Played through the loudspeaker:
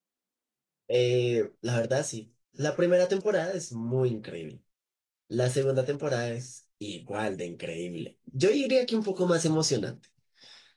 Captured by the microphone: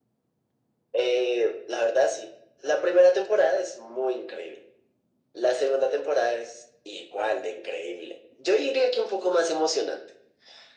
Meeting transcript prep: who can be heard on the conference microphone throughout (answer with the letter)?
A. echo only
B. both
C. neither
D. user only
A